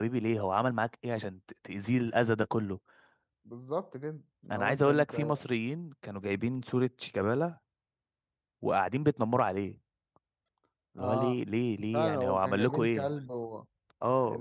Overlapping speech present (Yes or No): Yes